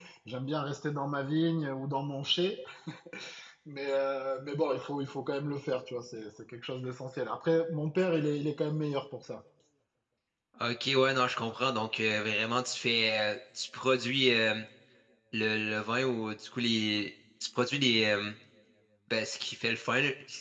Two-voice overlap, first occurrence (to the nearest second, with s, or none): none